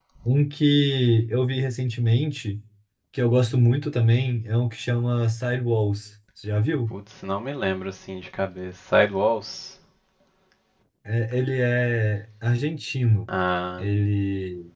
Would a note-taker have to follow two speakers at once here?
No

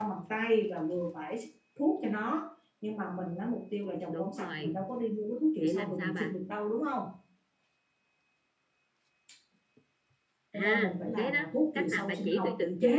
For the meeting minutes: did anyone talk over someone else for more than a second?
Yes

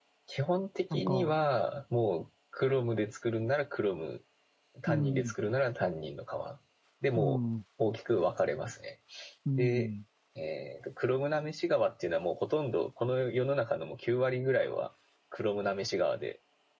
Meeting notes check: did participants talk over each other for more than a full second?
No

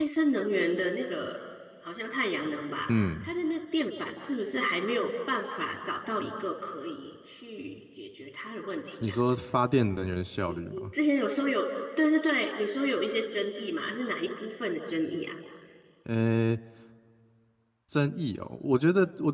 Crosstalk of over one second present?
No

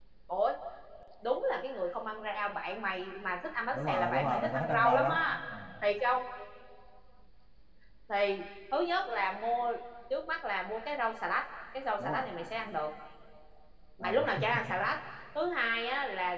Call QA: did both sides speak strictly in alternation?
No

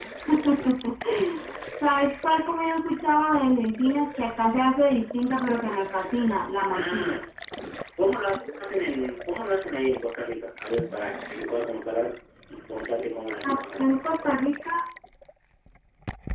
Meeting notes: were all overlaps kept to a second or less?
Yes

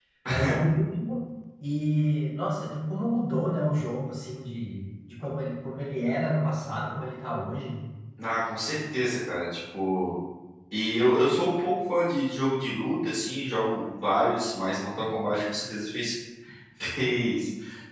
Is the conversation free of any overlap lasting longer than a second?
Yes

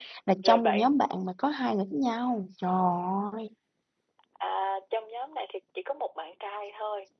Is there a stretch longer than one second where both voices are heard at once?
No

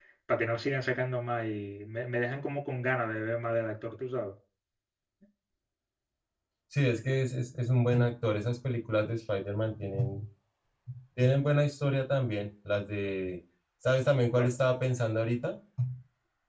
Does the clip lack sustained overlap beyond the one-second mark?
Yes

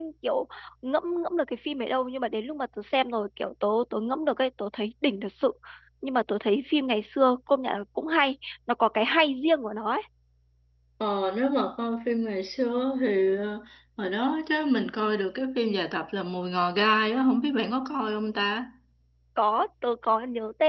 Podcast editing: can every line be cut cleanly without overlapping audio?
Yes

